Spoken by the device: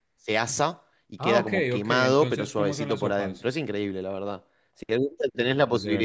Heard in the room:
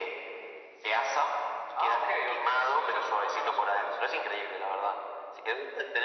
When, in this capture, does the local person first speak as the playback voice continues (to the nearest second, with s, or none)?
none